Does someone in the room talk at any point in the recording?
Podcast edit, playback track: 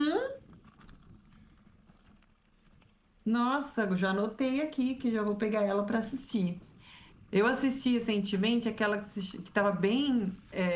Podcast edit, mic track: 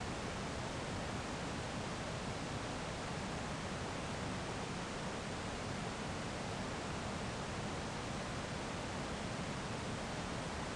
No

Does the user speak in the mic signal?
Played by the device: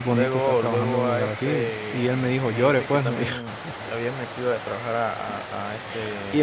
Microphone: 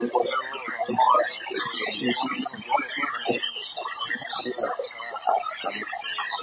No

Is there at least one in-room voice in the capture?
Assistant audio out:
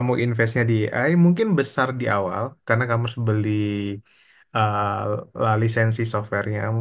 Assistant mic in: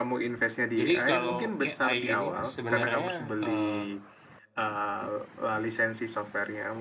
Yes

